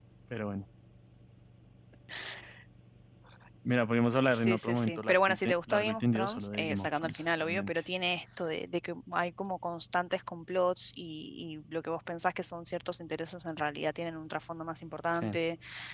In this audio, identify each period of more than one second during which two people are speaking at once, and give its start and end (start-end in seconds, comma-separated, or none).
4.3-7.8